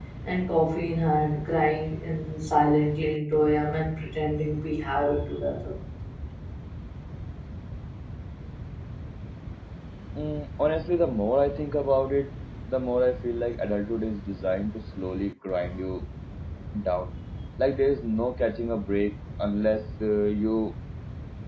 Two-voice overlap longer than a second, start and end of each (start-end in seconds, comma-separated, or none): none